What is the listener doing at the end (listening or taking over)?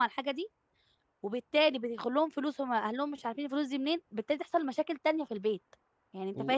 listening